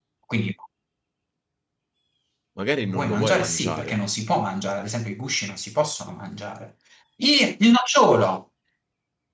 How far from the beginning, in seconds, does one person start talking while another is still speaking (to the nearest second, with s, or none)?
3 s